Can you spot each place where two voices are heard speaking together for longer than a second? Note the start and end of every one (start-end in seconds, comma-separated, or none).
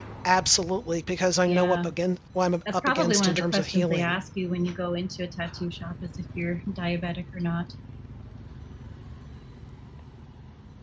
2.6-4.1